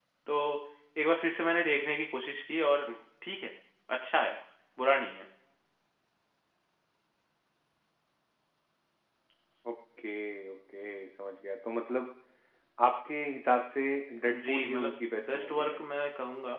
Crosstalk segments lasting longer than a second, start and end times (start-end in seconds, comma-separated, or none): 14.3-15.8